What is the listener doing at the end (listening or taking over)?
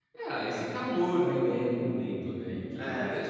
listening